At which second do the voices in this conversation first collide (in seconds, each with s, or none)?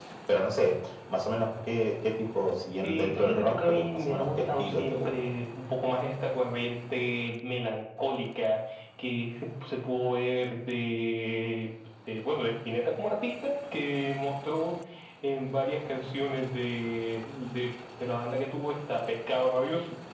2.8 s